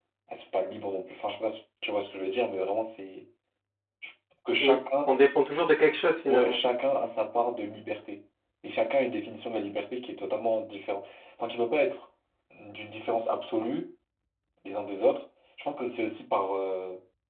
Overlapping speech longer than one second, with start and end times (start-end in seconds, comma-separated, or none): none